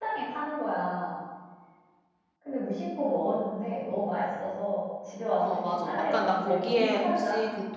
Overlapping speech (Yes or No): Yes